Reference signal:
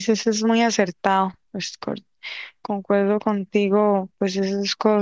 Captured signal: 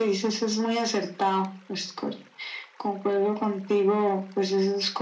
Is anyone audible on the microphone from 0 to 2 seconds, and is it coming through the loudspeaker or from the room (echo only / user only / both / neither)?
echo only